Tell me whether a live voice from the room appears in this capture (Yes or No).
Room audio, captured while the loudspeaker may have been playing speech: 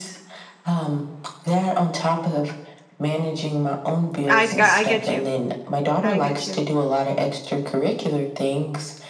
Yes